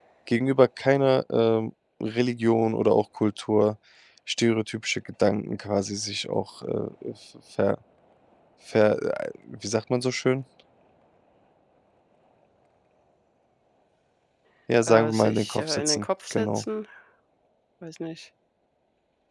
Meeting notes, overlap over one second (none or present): present